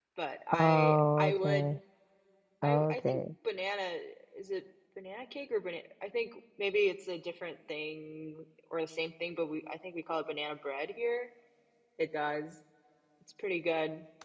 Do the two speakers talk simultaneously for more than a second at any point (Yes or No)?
Yes